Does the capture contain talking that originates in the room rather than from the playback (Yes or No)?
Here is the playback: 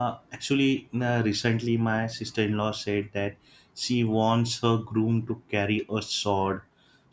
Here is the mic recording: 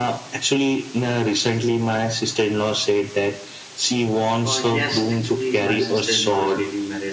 Yes